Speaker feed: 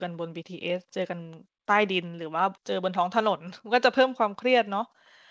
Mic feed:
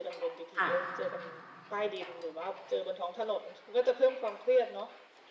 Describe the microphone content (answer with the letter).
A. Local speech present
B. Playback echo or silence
A